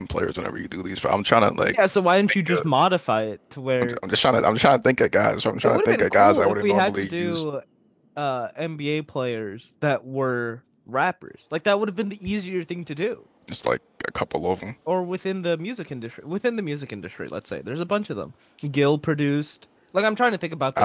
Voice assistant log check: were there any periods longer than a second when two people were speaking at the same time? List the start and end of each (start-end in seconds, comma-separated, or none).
5.6-7.4